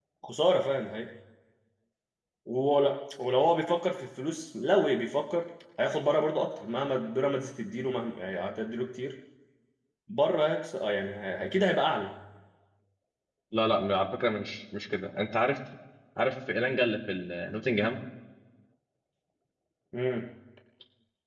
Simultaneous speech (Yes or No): No